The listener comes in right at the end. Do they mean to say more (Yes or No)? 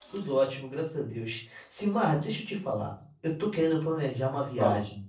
No